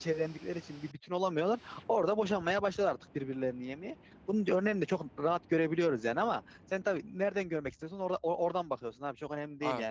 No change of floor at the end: Yes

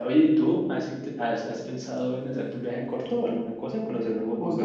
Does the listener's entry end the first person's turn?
Yes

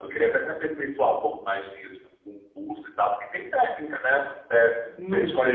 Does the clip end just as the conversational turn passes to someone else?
No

